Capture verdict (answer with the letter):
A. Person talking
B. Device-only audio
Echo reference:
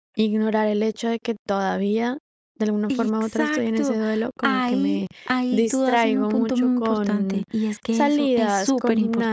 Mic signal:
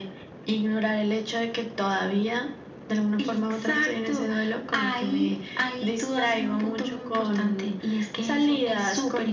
B